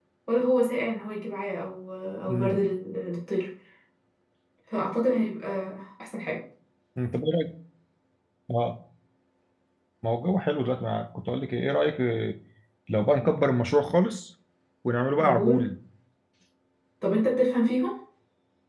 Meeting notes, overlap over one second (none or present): none